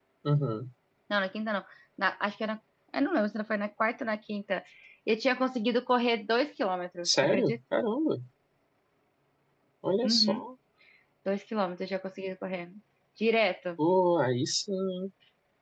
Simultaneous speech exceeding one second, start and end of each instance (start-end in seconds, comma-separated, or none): none